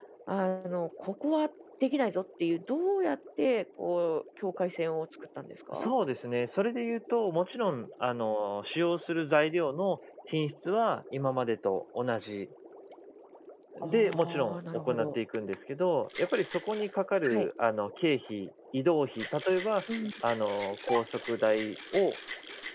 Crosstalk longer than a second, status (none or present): present